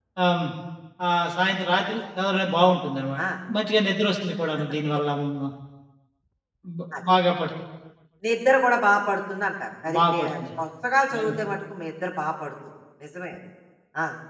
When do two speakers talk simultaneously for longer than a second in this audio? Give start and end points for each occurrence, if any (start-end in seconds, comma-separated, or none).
none